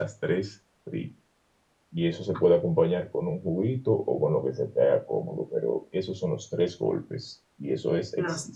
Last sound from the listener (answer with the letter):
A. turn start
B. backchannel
B